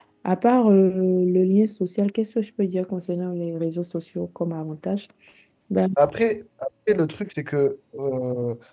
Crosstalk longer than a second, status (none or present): none